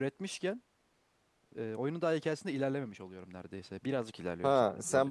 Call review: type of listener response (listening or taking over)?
taking over